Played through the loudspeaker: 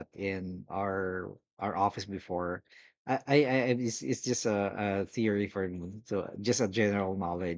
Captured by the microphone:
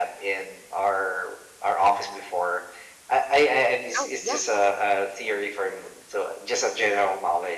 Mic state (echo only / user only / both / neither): both